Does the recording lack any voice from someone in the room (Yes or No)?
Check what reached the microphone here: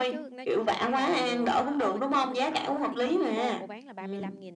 No